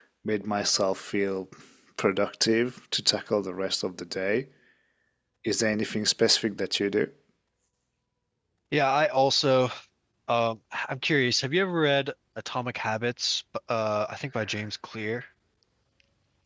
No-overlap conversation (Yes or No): Yes